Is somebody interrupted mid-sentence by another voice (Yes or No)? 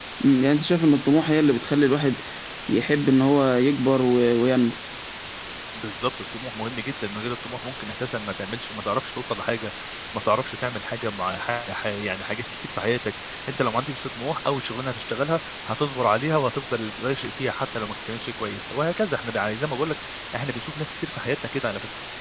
No